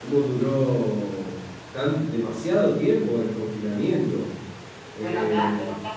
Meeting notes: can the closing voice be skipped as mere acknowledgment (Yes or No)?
No